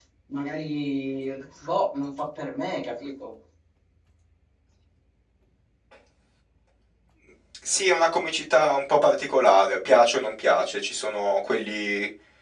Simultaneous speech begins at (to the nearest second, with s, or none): none